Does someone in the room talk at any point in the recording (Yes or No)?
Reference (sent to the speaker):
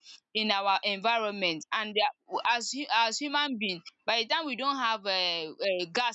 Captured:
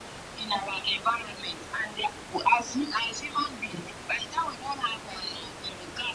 No